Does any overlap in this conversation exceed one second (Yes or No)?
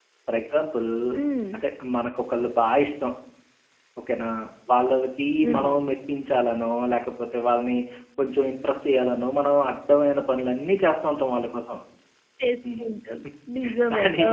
No